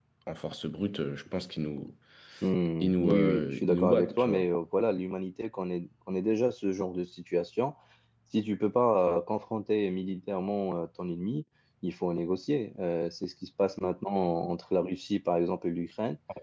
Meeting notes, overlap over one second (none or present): present